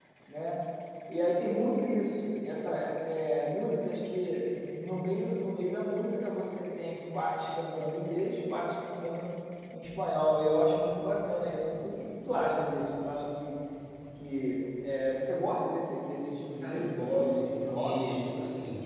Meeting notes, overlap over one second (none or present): present